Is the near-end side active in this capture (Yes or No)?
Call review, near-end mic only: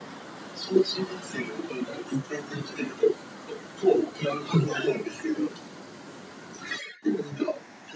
No